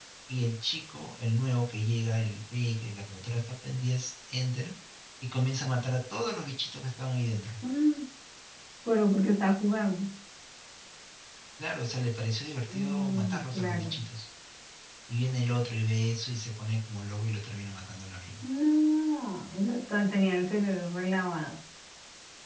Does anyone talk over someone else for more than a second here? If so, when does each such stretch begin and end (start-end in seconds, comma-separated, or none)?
12.7-13.9